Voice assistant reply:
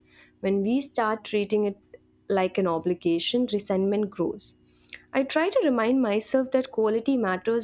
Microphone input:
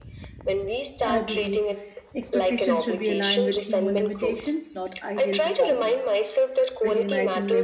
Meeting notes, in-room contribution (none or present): present